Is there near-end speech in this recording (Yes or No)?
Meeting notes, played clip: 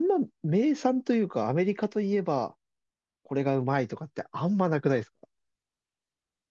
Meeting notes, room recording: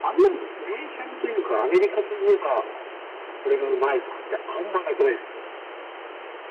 No